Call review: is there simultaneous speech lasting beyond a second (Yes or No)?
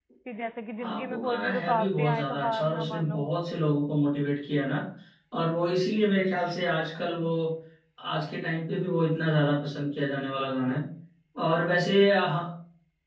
Yes